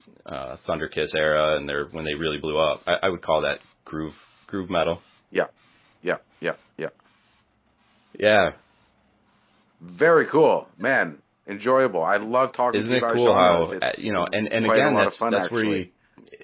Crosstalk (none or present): present